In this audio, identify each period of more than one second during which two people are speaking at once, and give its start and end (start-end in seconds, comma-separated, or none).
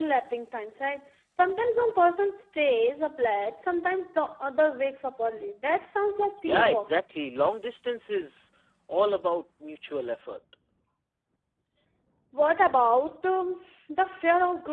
none